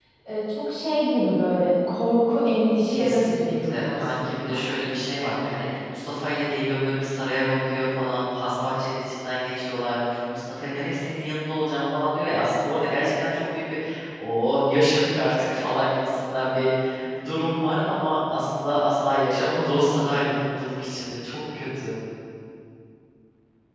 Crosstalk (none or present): present